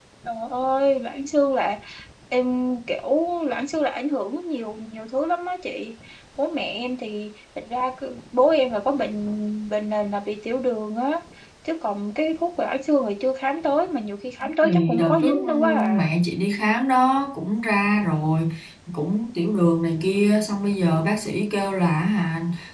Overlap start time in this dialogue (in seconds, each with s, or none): 14.6 s